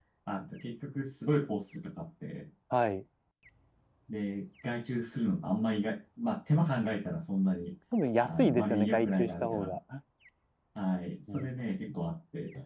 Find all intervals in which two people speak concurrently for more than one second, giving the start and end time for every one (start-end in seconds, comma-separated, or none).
8.2-9.8